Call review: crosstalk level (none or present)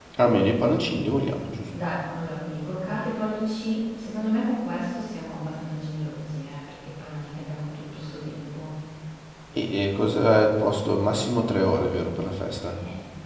none